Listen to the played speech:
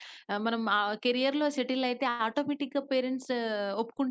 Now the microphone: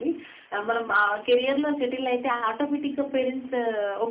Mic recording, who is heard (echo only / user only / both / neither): echo only